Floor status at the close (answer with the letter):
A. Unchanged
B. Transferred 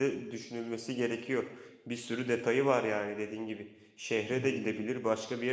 A